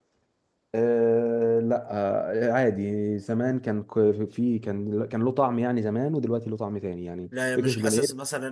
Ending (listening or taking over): taking over